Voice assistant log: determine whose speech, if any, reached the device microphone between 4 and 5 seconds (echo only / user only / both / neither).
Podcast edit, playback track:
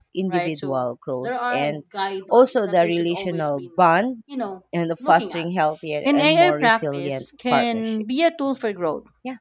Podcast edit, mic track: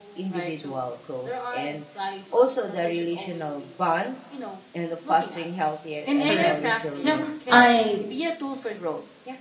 echo only